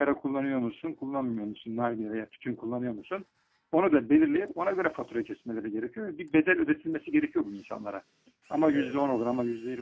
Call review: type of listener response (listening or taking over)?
listening